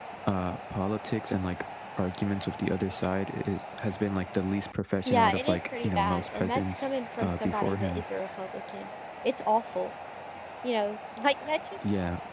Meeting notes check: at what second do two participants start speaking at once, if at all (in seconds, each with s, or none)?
5.0 s